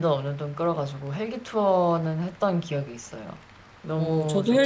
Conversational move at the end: taking over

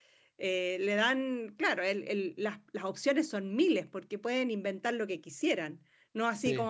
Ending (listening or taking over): listening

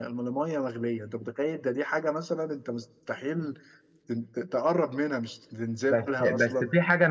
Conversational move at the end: taking over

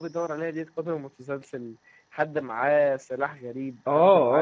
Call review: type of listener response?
taking over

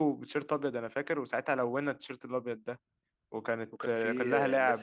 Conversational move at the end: taking over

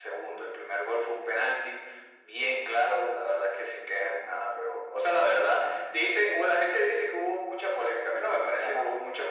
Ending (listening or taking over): taking over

